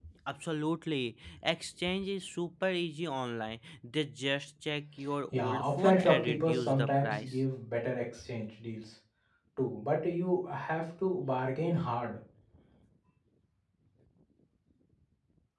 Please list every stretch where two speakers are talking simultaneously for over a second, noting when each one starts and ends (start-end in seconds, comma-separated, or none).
5.3-7.3